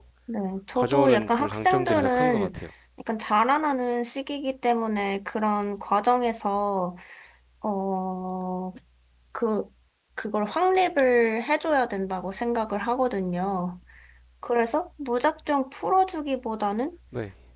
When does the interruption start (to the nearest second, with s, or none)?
1 s